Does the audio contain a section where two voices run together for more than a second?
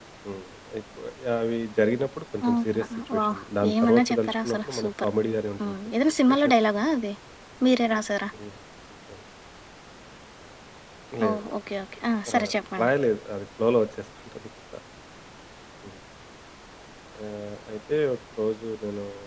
Yes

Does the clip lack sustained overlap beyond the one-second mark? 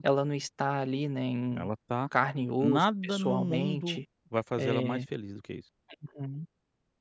No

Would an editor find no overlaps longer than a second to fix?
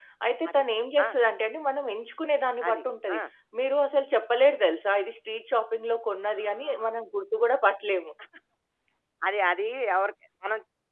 Yes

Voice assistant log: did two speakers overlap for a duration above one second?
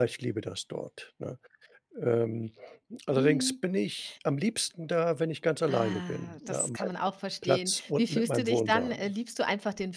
Yes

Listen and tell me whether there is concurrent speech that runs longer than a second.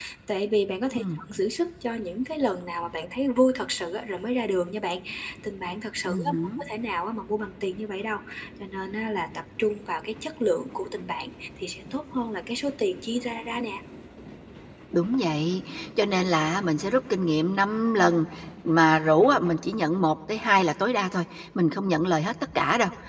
No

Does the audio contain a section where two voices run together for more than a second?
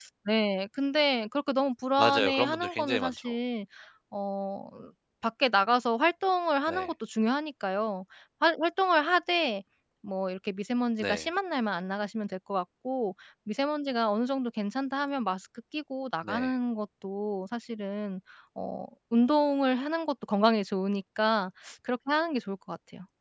Yes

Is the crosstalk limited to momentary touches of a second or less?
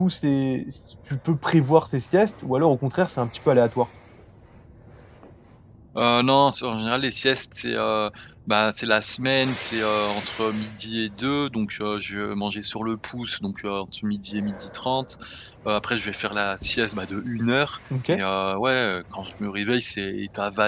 Yes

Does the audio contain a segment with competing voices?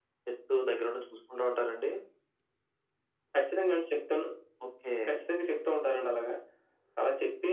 No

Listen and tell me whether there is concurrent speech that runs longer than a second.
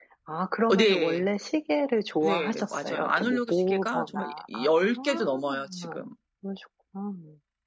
Yes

